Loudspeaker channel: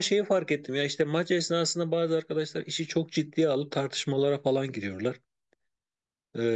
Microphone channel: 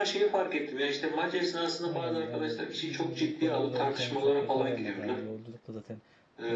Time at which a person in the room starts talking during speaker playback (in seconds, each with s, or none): 1.8 s